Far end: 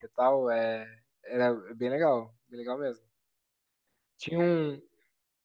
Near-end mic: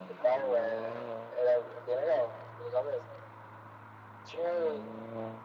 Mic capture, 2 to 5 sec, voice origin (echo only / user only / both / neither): echo only